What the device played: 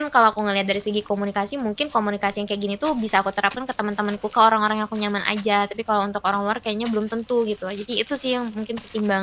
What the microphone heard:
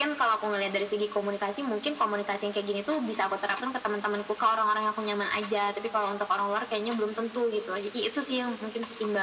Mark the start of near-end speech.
none

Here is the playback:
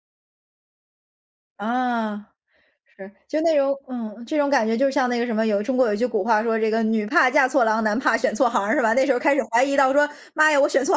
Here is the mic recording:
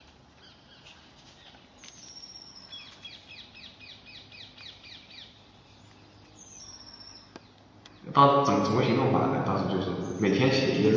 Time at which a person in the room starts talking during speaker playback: 8.1 s

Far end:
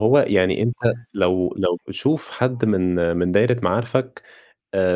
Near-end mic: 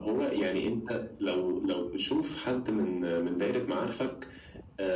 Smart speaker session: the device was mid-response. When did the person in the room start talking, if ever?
none

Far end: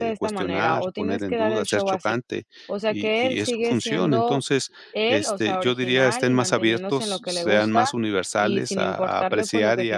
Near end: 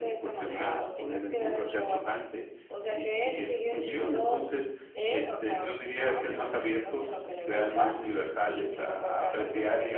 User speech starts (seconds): none

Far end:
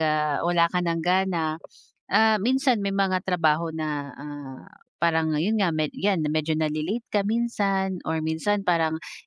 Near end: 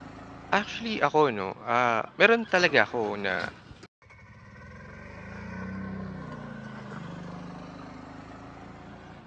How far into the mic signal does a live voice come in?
0.5 s

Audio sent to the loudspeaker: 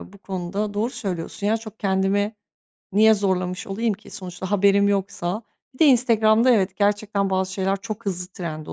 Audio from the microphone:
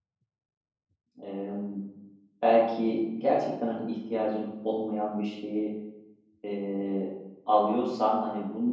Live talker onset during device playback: 1.2 s

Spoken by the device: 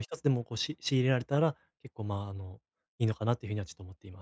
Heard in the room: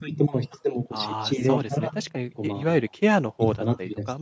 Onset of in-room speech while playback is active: 0.9 s

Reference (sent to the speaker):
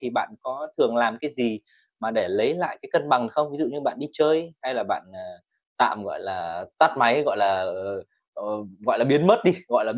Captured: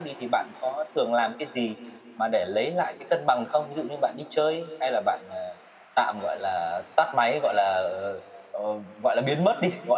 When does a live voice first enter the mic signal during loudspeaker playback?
none

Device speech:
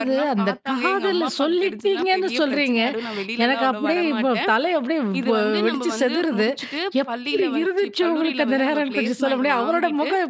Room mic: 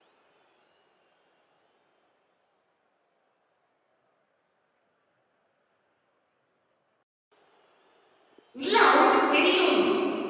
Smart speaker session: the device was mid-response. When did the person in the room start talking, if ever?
8.6 s

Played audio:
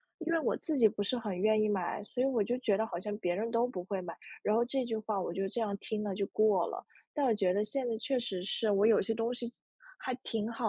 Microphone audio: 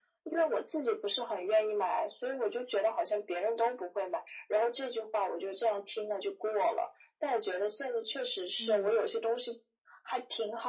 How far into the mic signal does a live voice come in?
8.6 s

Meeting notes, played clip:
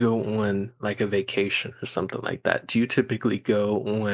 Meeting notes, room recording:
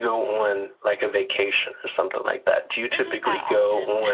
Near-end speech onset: 2.9 s

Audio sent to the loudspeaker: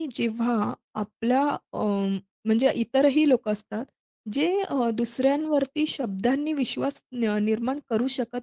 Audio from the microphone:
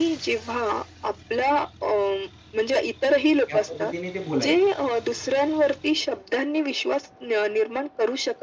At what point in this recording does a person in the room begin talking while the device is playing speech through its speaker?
3.5 s

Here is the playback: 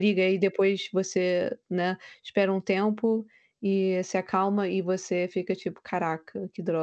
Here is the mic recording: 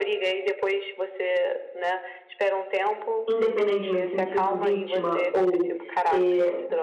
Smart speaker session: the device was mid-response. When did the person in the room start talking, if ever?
3.3 s

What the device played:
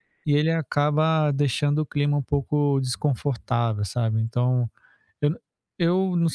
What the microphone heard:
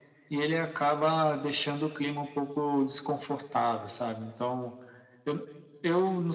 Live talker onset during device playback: none

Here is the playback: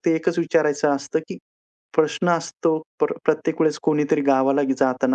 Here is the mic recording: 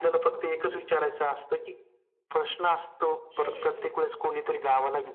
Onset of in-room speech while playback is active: 3.4 s

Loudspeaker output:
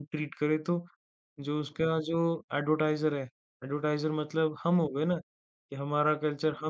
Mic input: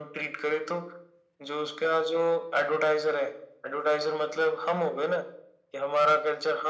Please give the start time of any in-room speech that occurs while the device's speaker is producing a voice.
none

